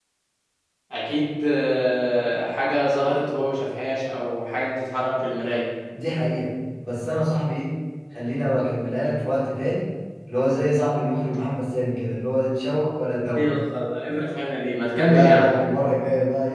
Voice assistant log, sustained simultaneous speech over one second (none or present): none